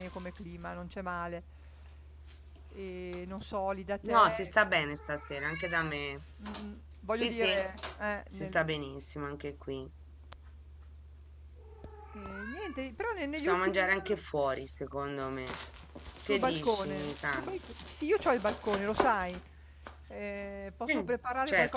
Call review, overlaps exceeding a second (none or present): present